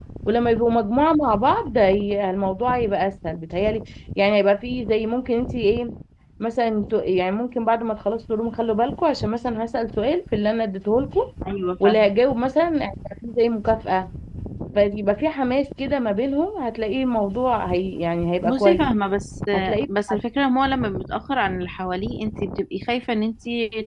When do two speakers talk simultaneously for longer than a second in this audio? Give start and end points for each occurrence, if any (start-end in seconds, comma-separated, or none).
none